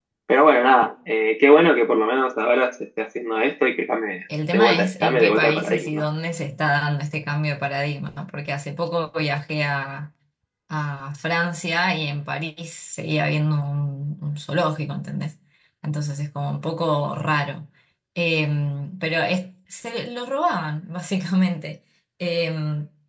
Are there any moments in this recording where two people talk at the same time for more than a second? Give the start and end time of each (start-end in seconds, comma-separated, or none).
4.5-6.0